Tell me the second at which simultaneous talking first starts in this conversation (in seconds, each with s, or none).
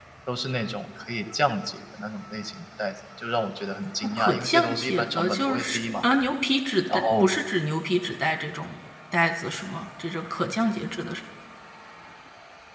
4.2 s